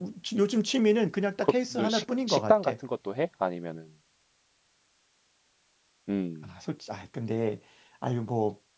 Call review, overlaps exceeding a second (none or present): present